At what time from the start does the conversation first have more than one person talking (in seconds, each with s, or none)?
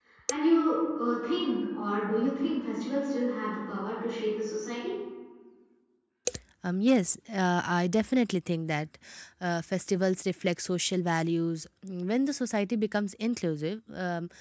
none